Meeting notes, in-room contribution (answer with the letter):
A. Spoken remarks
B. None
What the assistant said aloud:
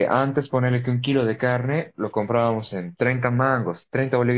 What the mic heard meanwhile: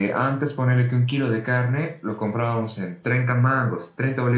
B